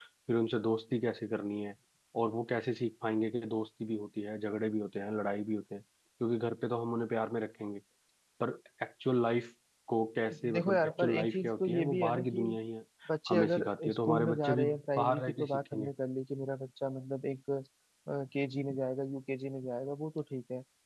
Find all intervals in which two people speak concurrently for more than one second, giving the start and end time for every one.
10.3-12.4, 13.3-15.9

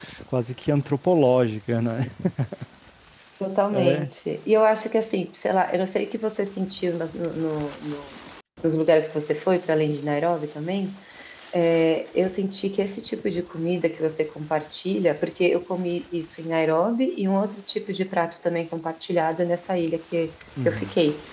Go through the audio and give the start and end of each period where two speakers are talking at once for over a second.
none

